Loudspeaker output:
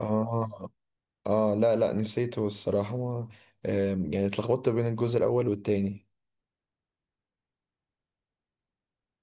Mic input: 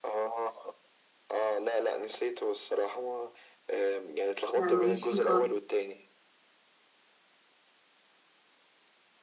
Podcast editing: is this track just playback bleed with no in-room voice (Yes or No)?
No